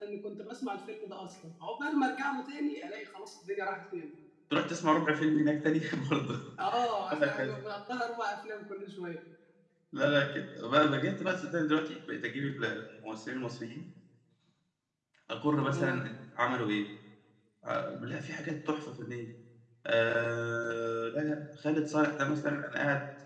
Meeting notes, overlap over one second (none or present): none